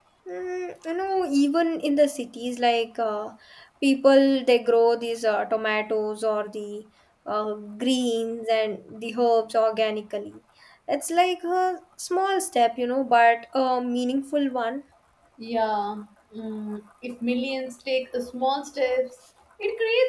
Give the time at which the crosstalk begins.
none

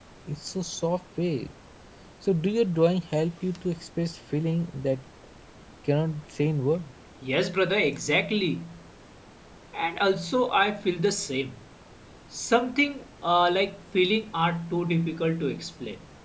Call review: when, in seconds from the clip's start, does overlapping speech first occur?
none

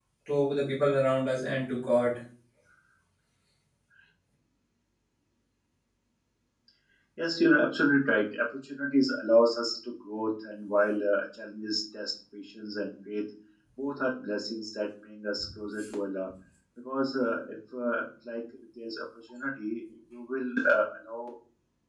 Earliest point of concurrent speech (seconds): none

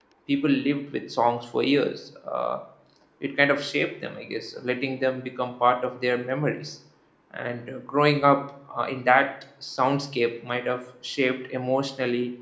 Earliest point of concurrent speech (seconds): none

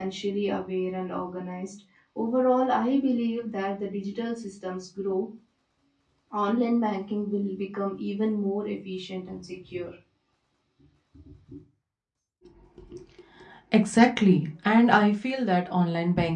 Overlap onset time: none

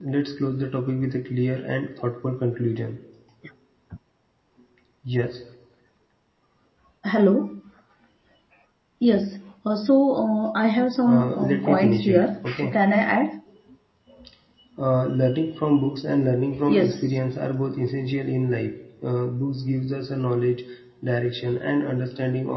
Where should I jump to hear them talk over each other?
11.1 s

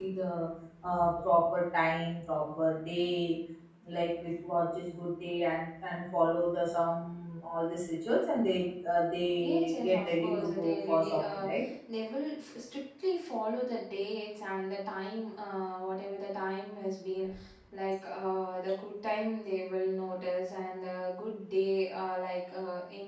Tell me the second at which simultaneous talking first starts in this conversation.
9.4 s

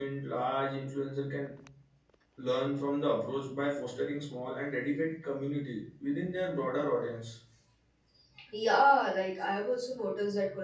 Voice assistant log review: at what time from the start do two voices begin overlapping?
none

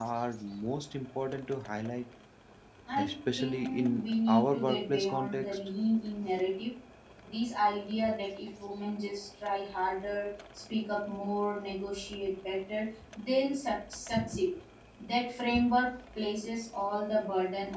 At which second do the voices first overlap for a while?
3.0 s

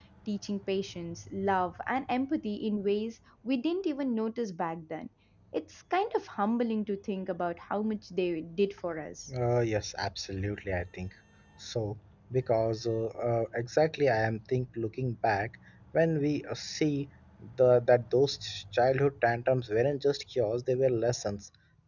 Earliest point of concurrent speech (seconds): none

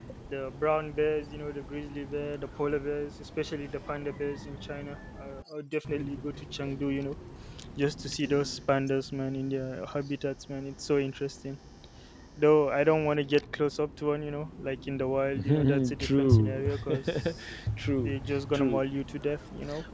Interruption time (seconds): 15.3 s

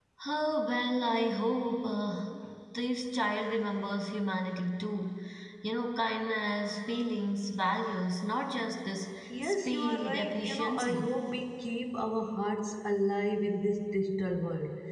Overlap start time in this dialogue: 9.3 s

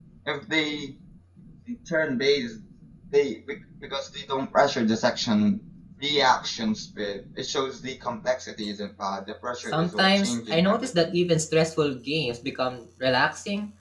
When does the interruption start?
9.6 s

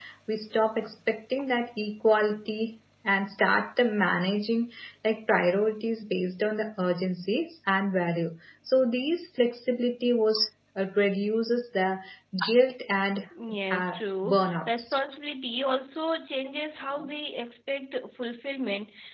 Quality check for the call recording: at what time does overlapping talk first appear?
13.7 s

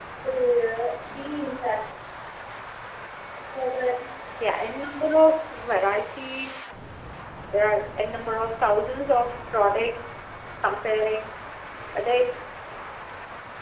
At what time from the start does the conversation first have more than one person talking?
none

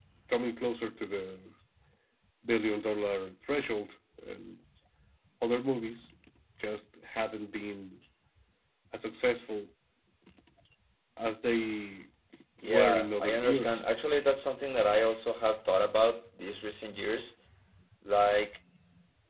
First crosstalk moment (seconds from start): 12.6 s

